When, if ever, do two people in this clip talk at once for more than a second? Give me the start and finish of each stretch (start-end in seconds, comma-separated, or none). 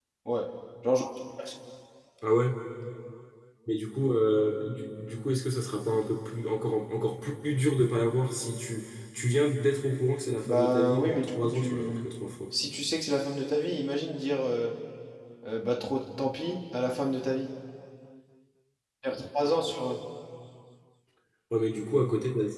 10.4-12.0